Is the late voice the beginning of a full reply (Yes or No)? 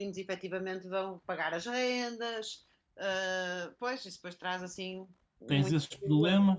Yes